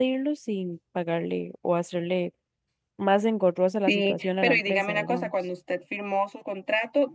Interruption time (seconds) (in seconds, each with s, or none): 3.9 s